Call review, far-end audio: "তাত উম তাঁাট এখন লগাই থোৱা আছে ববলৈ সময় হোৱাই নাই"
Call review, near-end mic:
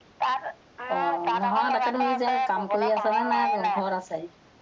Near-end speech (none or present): present